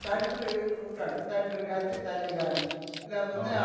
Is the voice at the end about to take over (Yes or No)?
No